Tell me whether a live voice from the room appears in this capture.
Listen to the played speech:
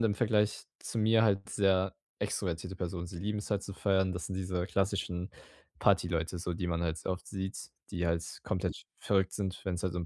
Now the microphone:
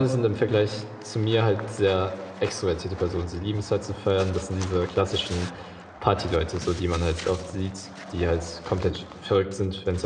No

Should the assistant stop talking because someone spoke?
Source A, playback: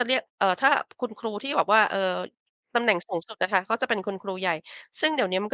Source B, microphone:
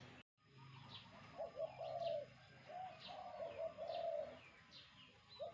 No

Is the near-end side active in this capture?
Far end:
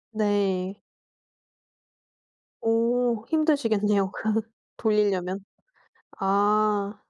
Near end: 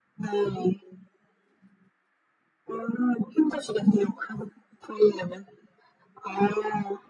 No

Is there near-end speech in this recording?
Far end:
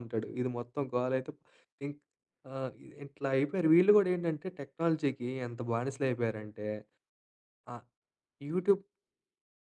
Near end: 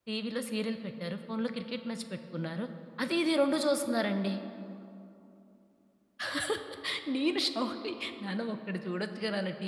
Yes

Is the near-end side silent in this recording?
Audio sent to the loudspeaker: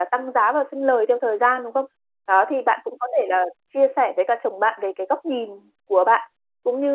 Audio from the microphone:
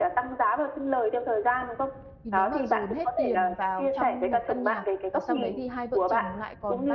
No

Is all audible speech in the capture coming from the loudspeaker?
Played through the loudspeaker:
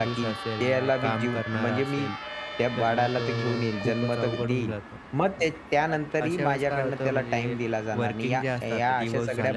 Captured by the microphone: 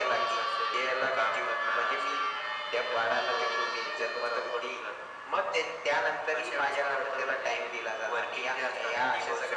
Yes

